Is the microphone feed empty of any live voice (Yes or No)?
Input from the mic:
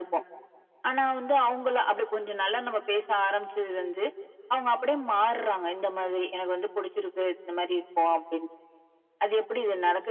Yes